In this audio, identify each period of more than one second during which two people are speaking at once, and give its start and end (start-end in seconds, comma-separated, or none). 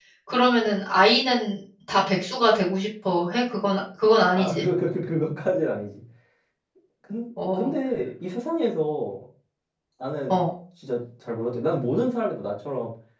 none